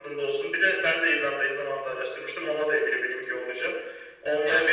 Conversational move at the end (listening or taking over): taking over